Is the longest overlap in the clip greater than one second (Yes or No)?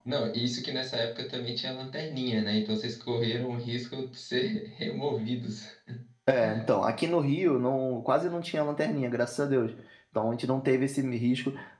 No